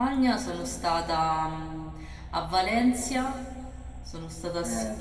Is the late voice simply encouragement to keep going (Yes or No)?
No